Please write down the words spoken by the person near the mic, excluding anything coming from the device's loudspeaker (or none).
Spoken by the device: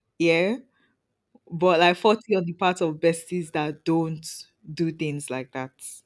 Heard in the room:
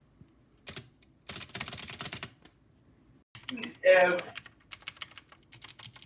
um